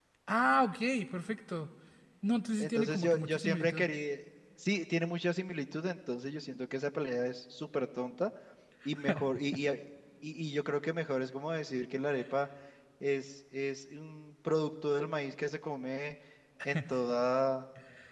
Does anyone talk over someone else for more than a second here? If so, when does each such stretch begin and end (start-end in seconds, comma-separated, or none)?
2.6-3.9